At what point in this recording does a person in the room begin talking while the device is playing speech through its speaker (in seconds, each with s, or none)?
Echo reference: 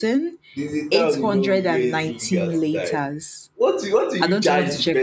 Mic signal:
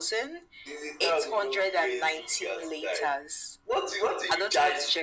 none